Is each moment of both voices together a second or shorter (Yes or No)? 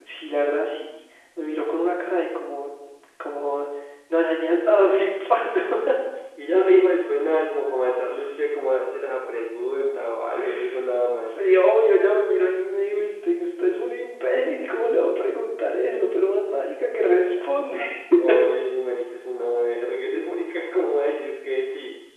Yes